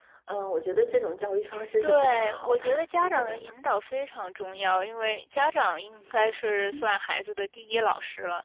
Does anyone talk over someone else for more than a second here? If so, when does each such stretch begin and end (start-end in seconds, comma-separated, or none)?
1.8-3.5